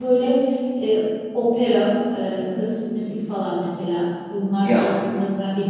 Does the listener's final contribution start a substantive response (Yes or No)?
No